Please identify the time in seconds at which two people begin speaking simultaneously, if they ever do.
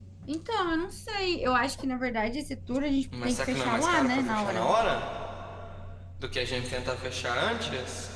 3.1 s

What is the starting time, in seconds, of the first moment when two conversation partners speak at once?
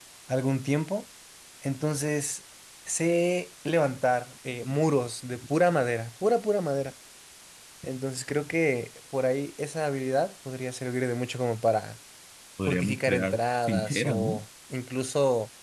12.7 s

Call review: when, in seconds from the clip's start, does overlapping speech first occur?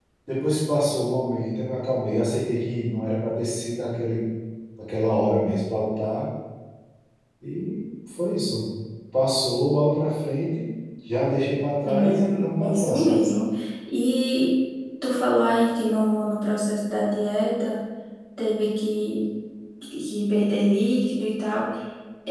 11.9 s

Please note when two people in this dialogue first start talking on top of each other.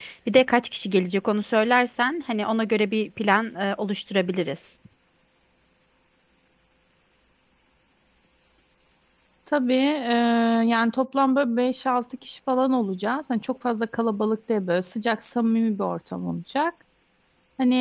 none

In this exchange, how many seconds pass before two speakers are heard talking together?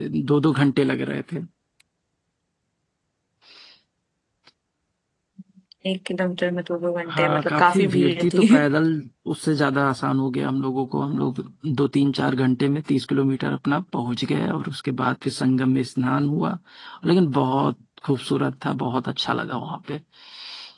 7.1 s

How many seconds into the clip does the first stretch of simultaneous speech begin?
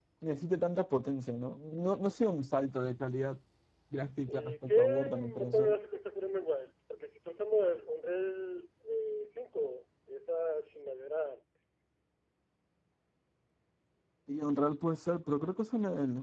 4.3 s

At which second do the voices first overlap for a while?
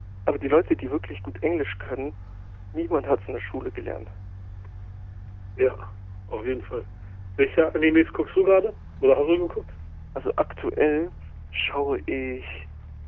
none

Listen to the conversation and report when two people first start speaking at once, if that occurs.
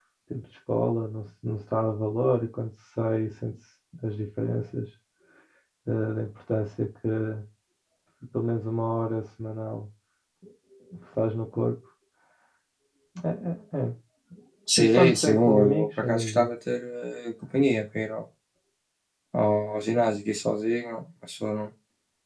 14.8 s

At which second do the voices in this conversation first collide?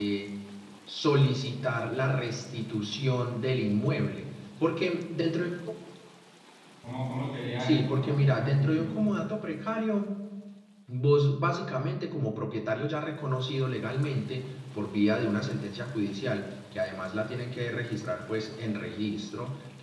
7.6 s

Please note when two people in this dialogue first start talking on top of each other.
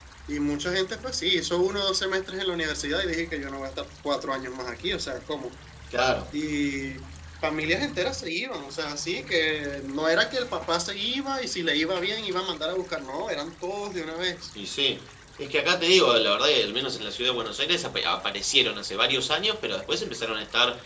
none

